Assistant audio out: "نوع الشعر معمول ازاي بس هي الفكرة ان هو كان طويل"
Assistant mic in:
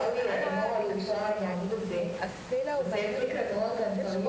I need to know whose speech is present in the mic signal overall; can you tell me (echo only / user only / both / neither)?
both